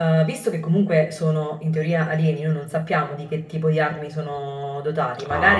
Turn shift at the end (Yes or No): No